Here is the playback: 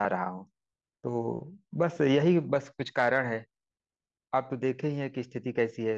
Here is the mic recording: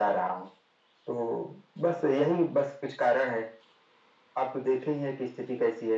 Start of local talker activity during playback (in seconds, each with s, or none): none